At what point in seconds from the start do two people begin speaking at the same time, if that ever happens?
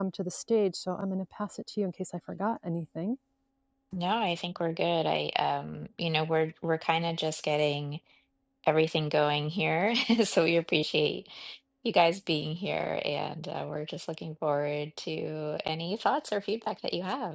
none

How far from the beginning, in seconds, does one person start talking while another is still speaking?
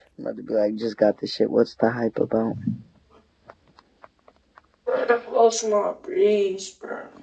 none

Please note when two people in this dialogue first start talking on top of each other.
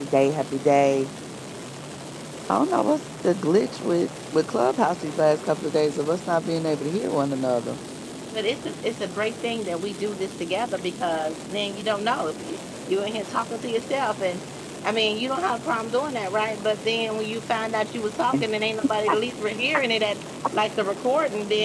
none

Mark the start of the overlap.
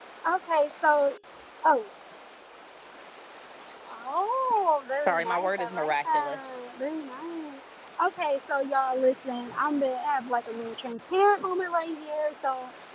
5.1 s

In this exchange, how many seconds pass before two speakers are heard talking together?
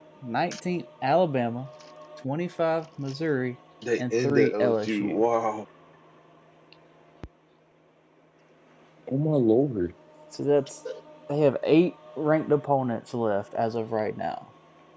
4.0 s

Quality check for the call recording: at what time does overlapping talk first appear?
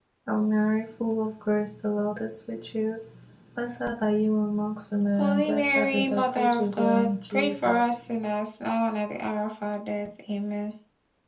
5.2 s

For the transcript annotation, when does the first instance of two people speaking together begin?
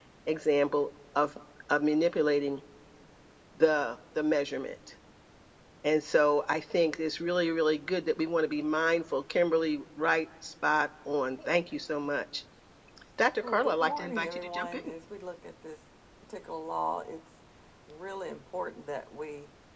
13.4 s

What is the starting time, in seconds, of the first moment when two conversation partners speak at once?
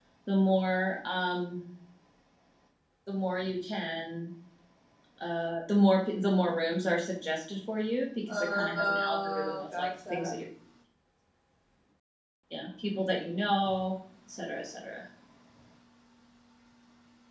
8.3 s

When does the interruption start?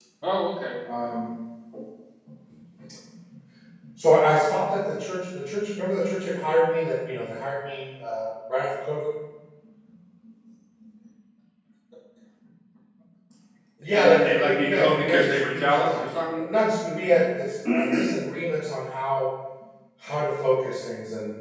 13.9 s

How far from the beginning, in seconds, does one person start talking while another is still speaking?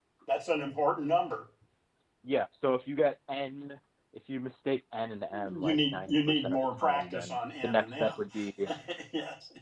5.3 s

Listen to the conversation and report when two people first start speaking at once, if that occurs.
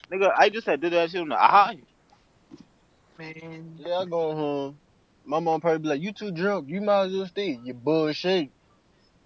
none

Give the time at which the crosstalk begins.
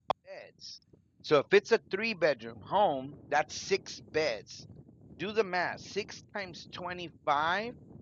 none

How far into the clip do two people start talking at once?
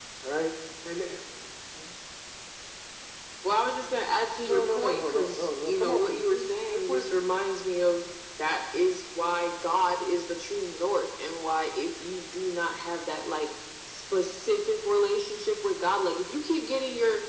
4.5 s

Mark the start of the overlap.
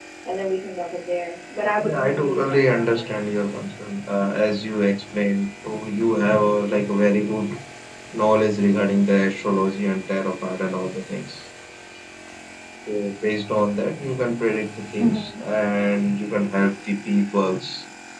1.8 s

